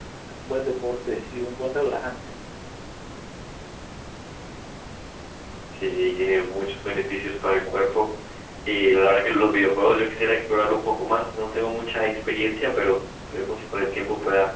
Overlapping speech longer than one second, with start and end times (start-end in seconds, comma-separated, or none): none